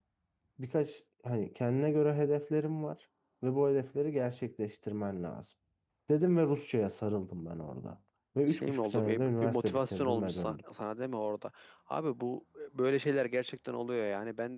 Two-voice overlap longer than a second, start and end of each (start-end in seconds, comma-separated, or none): 8.5-10.6